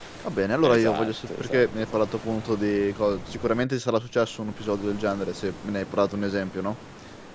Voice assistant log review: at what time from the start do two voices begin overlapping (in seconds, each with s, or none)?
0.6 s